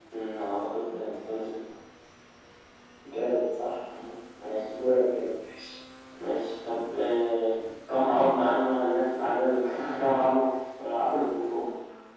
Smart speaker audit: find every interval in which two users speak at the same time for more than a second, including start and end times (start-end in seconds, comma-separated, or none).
none